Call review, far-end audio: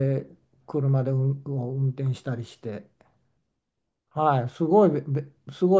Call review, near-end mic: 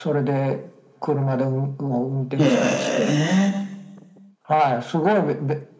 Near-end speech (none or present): present